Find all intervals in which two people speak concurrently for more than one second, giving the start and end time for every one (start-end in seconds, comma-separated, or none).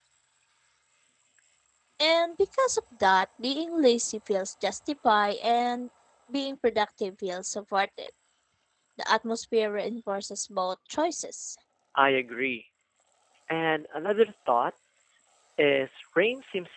none